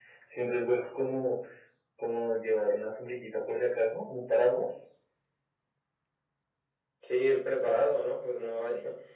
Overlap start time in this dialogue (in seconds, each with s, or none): none